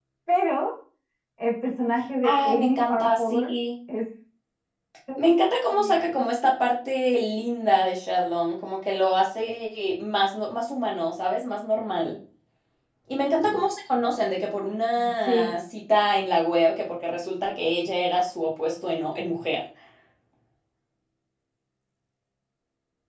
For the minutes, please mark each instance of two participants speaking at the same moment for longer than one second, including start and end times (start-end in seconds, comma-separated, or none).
2.2-3.5